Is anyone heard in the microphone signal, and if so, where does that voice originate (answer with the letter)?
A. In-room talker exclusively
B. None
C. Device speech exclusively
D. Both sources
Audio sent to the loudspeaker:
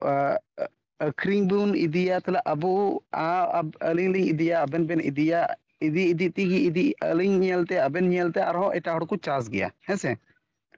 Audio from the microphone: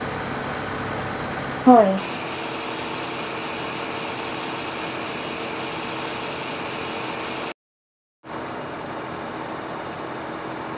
A